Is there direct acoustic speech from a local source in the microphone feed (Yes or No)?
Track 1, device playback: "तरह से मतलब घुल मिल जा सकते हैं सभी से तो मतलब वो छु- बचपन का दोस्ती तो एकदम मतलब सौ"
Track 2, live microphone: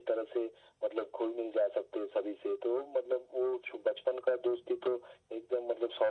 No